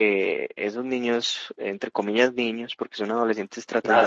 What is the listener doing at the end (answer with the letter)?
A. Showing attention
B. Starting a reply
B